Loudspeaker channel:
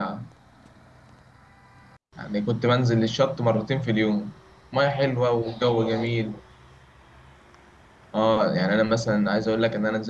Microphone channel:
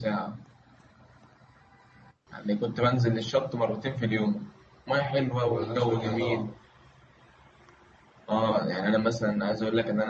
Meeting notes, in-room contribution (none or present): present